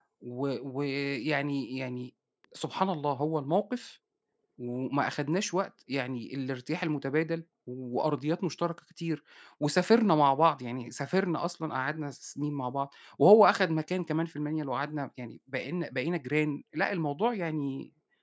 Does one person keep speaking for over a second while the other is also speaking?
No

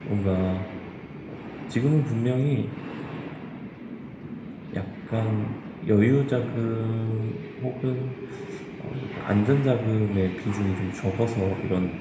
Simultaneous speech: No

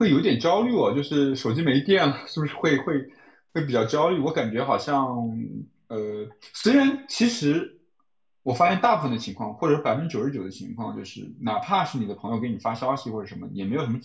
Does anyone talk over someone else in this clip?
No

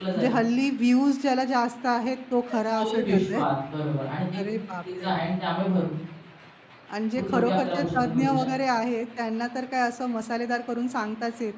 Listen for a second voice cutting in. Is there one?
Yes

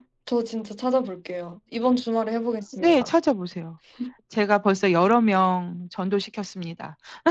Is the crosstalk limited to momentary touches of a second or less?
Yes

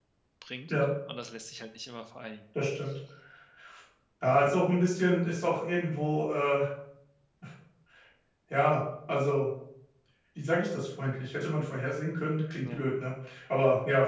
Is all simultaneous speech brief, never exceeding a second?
Yes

